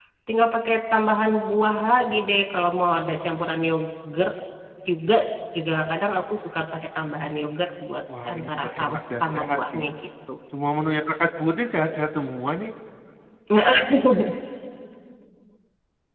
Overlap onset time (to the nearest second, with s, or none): 8 s